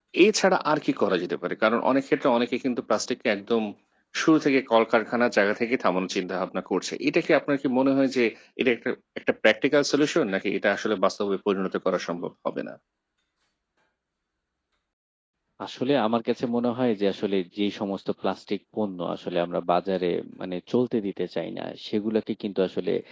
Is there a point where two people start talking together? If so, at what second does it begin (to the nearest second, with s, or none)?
none